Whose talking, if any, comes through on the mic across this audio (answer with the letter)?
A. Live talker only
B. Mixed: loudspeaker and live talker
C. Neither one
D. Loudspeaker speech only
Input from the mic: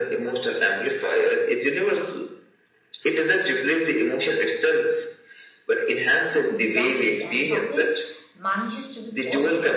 B